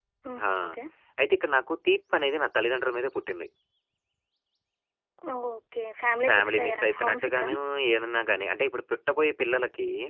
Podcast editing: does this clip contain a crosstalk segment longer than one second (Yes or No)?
Yes